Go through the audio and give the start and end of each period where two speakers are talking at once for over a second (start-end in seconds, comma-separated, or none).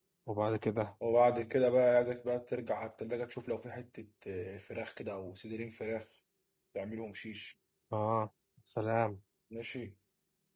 none